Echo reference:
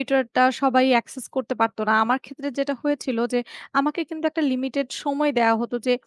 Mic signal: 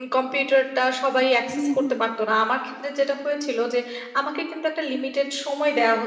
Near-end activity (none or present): present